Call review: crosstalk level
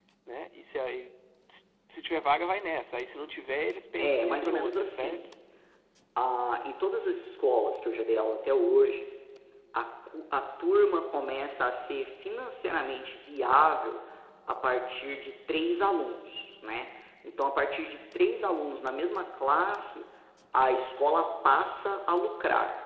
present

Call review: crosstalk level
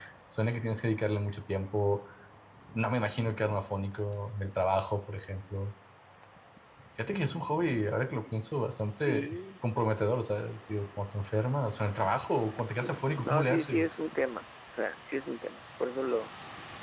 present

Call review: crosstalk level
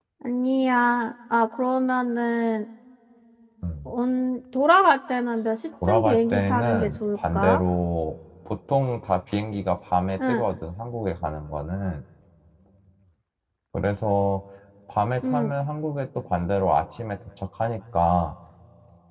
present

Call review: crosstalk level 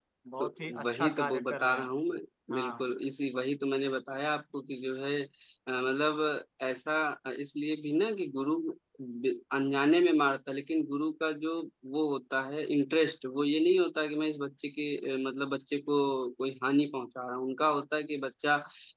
present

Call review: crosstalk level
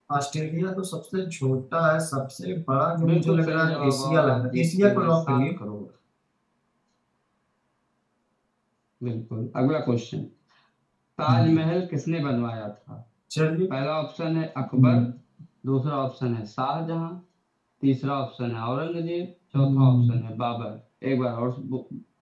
present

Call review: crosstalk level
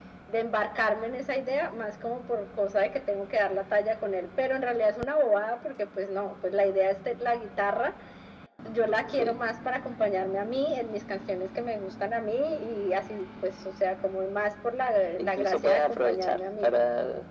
present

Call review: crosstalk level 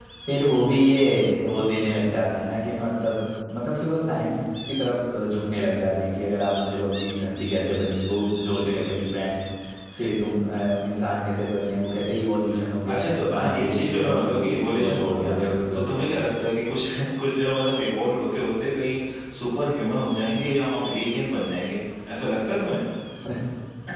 present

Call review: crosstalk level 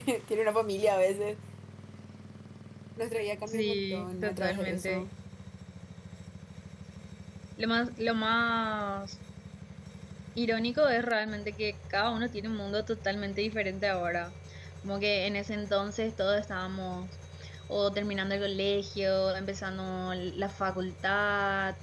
present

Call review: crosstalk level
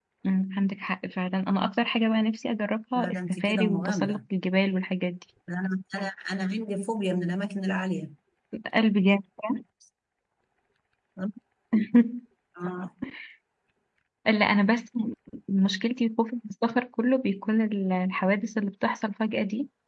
present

